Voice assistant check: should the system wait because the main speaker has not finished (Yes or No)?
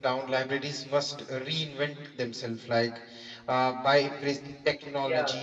Yes